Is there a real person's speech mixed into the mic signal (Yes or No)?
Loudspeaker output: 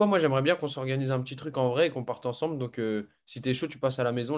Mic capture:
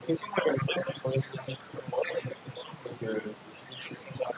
No